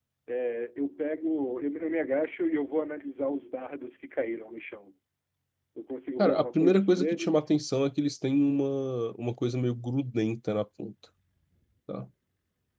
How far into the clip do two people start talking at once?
6 s

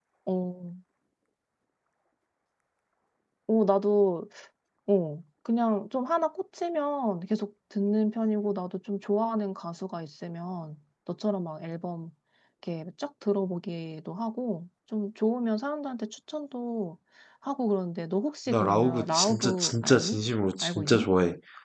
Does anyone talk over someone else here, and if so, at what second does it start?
18 s

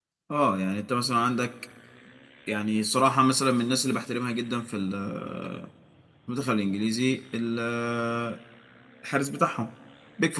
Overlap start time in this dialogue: none

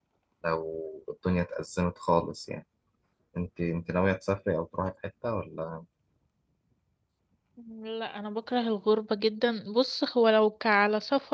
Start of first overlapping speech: none

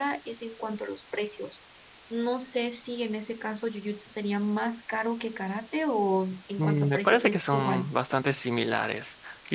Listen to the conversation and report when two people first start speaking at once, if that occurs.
7 s

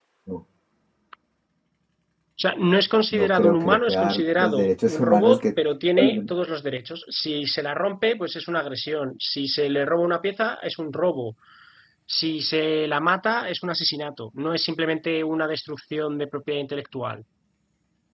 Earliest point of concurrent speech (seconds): 3 s

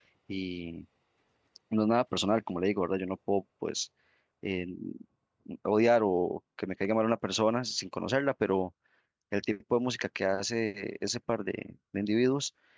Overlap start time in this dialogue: none

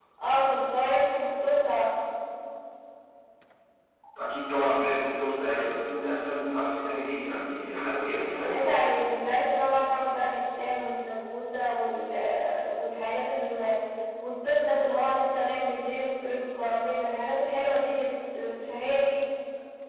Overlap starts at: none

